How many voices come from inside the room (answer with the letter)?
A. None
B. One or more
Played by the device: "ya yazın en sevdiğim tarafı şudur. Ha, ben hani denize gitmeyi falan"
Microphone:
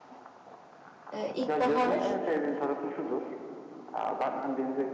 B